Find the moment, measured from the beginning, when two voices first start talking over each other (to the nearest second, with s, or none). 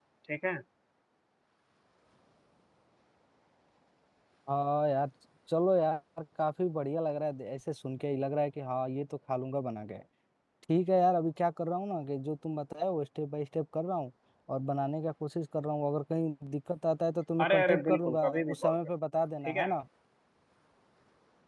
17 s